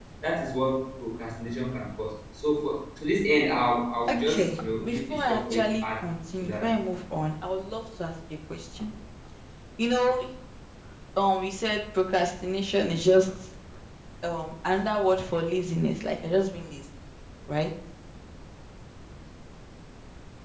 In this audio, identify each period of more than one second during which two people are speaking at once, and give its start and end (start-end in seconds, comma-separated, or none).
4.1-5.8